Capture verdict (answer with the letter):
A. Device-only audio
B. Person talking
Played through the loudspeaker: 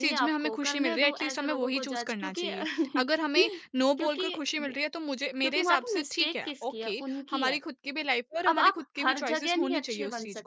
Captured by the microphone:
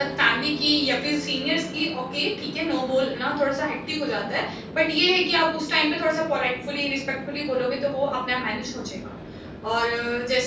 B